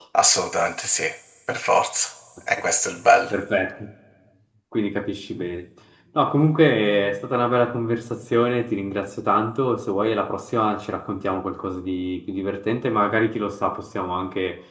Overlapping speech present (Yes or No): No